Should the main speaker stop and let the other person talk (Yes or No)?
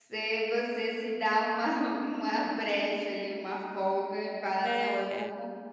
No